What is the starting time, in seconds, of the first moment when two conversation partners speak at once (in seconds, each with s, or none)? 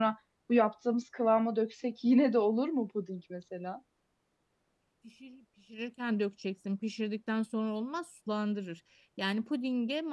none